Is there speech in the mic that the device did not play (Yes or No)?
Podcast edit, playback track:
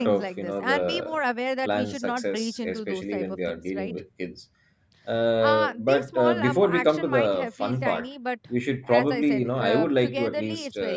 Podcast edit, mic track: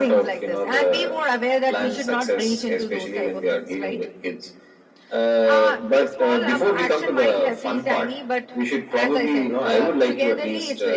No